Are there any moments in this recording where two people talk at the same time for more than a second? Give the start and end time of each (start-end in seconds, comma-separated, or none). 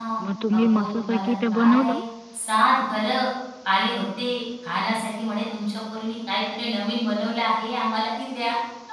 0.6-1.9